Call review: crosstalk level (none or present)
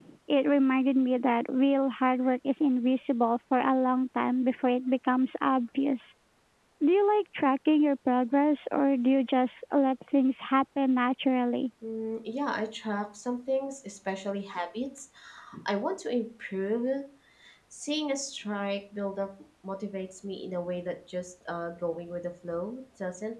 none